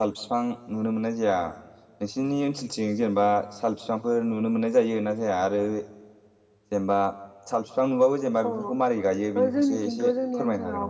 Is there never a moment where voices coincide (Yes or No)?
No